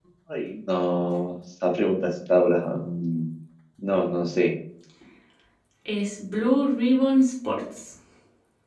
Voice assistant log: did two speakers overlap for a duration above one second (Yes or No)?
No